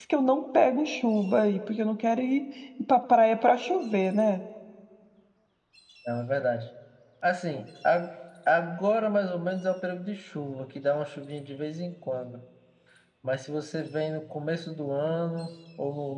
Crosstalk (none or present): none